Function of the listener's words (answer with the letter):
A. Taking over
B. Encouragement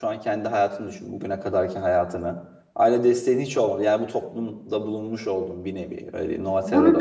A